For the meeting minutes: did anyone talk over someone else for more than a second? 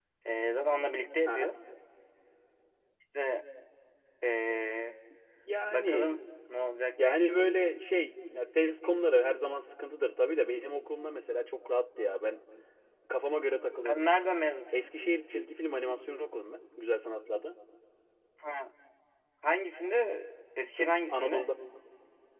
No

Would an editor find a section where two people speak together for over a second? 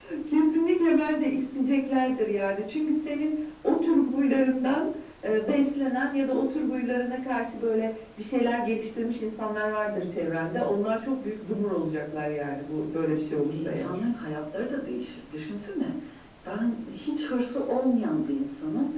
No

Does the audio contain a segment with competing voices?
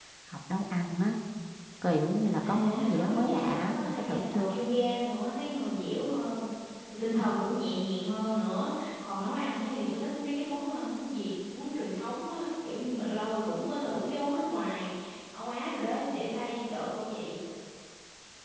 Yes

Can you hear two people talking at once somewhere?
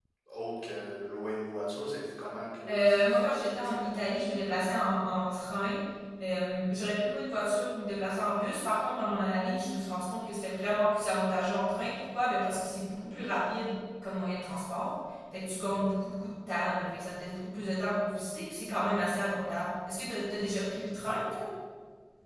Yes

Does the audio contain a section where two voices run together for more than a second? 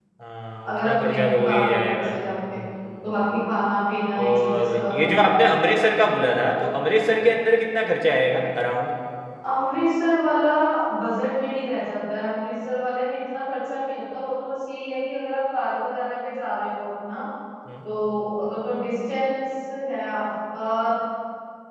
Yes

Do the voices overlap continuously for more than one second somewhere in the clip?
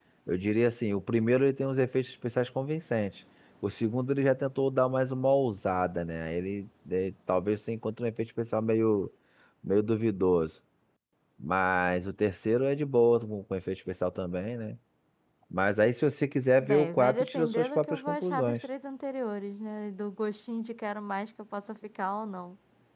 Yes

